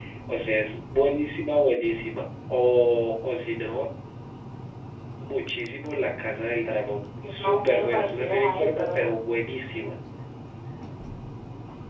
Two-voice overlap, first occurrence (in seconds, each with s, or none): 7.2 s